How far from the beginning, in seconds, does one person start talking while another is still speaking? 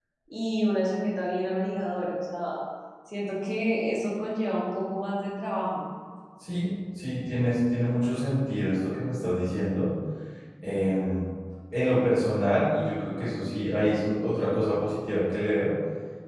none

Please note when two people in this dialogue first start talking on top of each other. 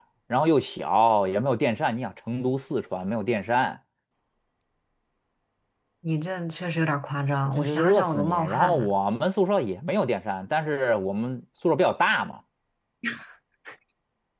7.4 s

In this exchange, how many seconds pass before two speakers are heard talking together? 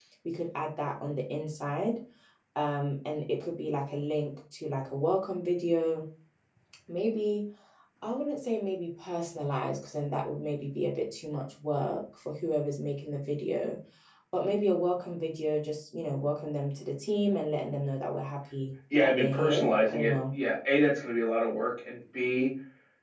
18.9 s

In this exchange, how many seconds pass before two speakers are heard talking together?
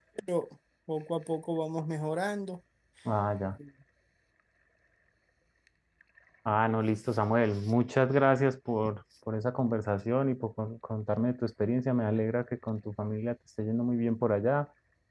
none

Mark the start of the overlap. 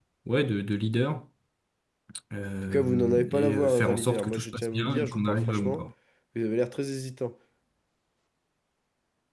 2.7 s

